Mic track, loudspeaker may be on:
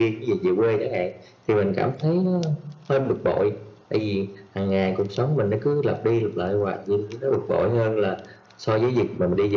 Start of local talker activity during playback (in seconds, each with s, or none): none